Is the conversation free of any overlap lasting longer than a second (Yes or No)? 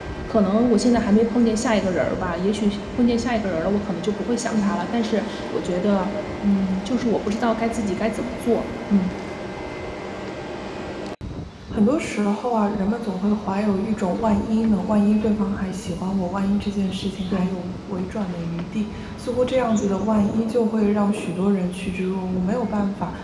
Yes